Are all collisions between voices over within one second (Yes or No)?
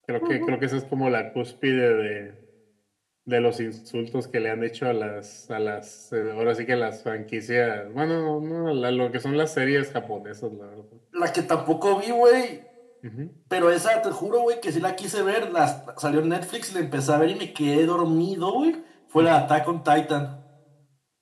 Yes